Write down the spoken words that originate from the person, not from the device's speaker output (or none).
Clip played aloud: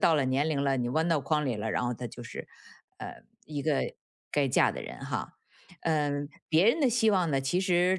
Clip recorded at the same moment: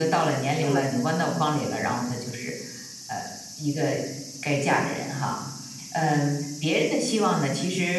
对。